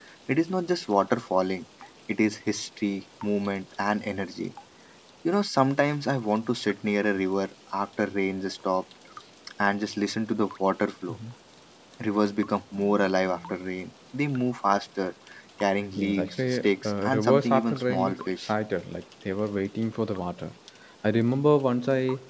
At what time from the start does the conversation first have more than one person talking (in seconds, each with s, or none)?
16.0 s